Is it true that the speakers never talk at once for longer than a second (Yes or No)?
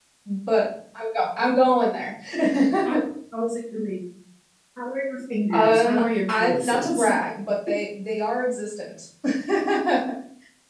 No